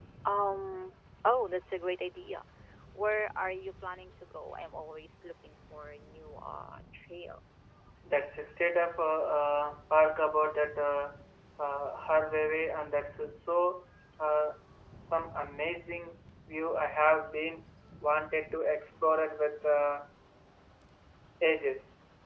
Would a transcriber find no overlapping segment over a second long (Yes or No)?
Yes